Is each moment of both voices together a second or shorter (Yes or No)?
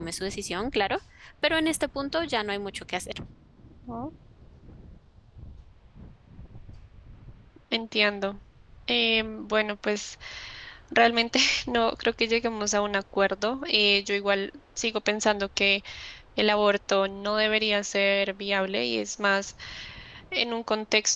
Yes